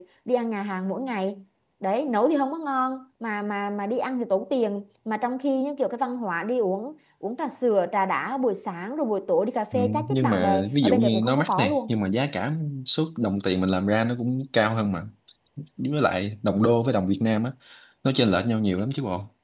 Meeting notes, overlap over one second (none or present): present